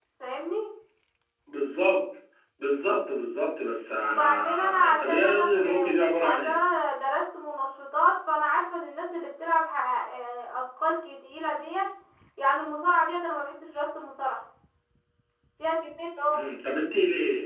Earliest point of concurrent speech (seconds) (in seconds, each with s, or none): 4.0 s